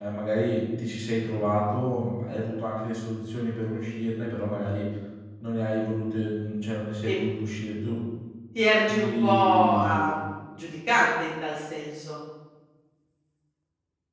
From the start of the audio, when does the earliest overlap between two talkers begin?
9 s

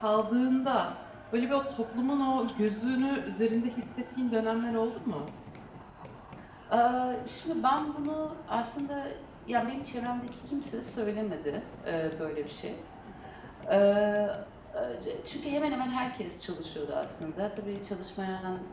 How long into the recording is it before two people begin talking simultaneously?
none

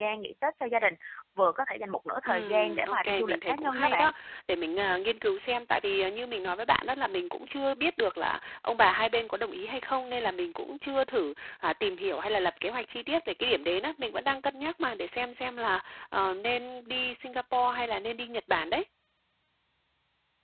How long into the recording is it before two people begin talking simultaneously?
2 s

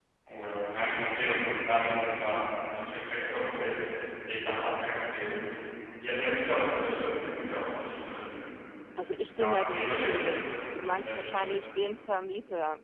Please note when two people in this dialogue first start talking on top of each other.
9 s

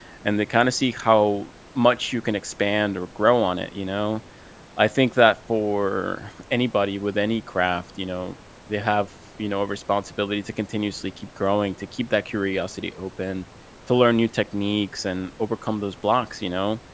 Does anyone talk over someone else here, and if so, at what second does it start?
none

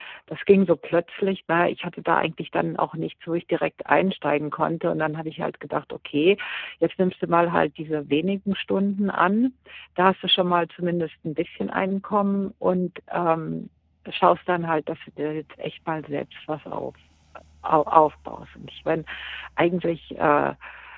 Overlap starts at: none

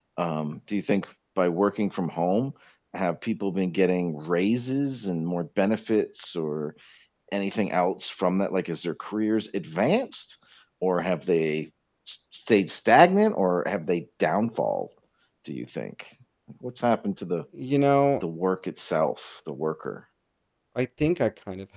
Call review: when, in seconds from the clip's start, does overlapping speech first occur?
none

